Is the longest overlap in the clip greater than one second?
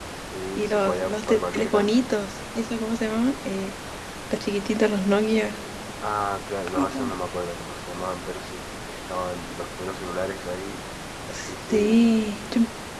Yes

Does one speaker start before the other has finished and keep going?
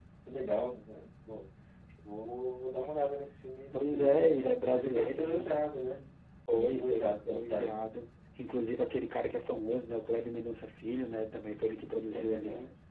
Yes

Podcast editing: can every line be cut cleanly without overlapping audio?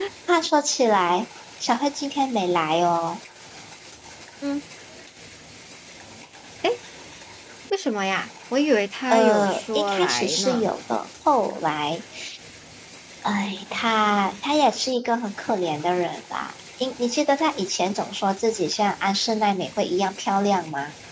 No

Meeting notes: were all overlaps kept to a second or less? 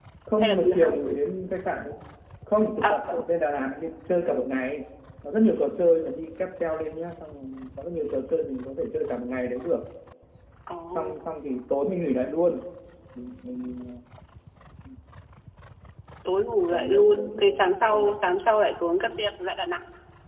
No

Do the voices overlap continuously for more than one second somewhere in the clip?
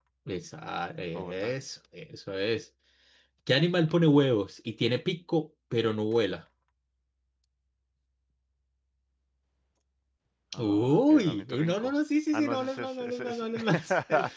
Yes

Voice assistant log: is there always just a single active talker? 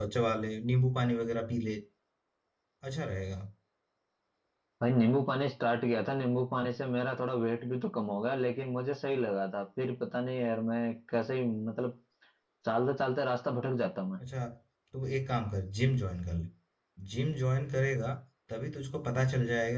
Yes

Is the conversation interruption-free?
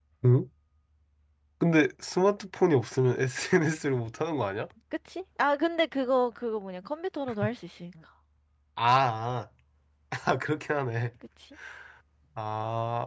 Yes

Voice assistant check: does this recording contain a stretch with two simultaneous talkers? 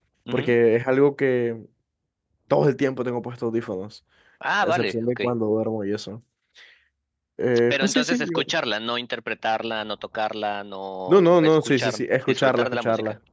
Yes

